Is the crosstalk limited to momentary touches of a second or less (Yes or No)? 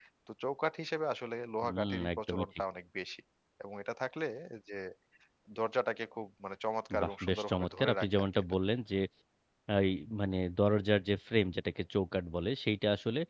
No